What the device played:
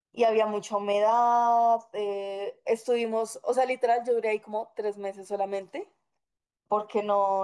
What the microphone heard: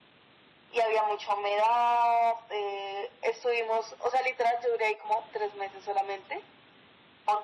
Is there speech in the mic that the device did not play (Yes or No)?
No